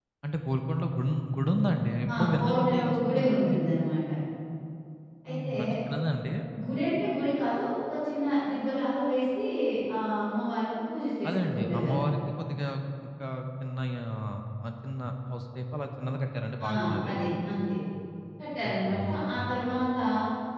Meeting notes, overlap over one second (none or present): present